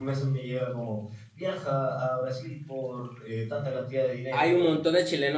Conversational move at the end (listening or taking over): taking over